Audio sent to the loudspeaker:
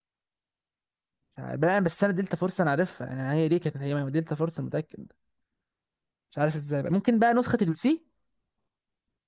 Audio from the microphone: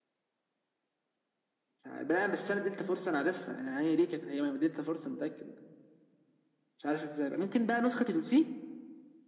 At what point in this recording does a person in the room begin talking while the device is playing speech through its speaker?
none

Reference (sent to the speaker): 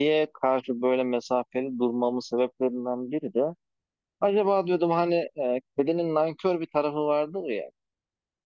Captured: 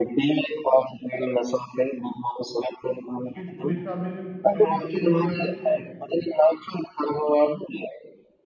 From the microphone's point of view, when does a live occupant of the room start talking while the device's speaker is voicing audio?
3.2 s

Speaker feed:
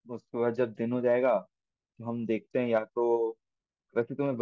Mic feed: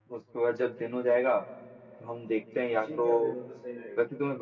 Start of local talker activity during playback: 2.7 s

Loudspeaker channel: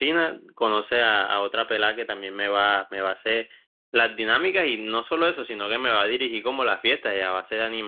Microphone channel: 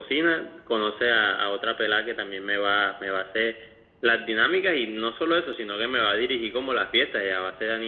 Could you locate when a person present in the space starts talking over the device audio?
none

